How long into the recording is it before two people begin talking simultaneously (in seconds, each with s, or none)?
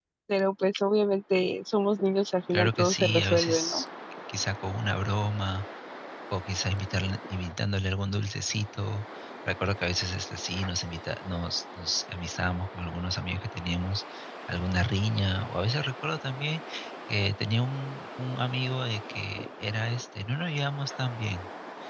2.5 s